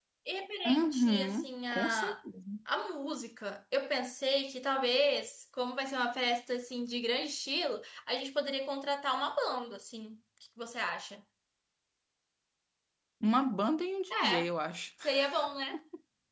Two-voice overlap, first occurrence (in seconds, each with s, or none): 0.7 s